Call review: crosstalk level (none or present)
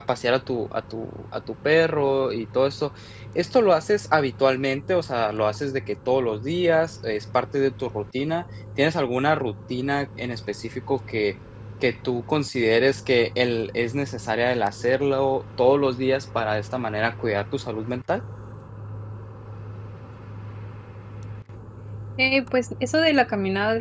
none